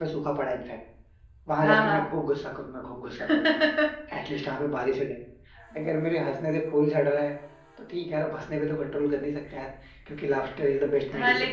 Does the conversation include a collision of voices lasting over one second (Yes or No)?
No